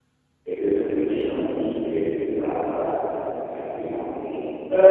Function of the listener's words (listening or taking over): taking over